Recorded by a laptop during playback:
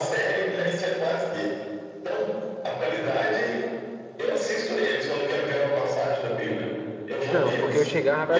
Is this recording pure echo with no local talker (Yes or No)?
No